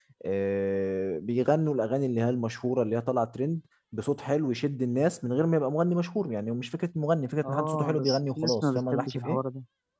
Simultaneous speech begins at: 7 s

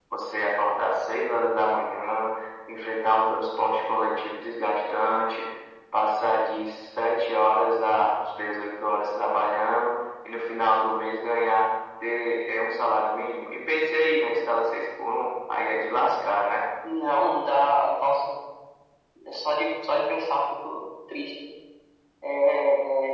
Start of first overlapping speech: none

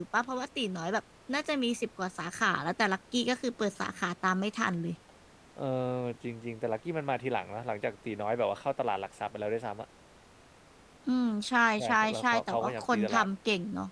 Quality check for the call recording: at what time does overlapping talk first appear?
12 s

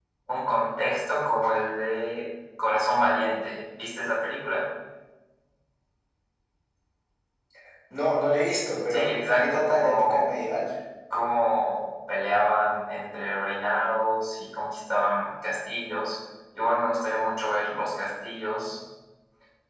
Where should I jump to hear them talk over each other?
9 s

